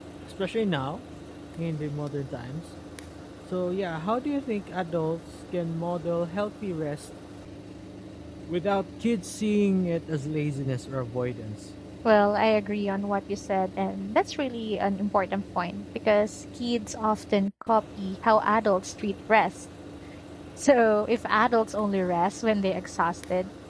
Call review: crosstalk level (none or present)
none